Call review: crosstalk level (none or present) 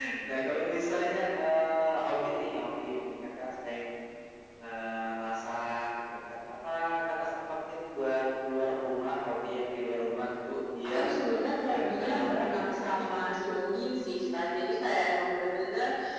present